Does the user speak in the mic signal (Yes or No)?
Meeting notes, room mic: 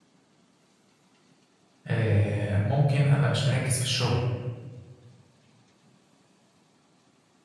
Yes